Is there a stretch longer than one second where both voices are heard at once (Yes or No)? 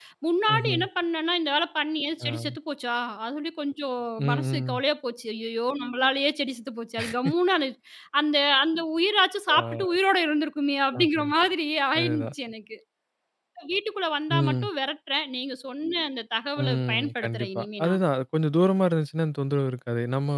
Yes